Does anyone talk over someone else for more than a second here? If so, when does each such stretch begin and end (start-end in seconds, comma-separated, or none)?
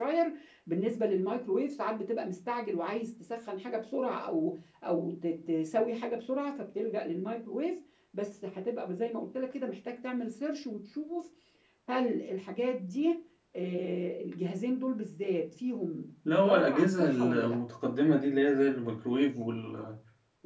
16.4-17.6